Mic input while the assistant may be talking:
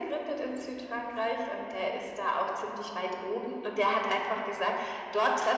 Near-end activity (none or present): none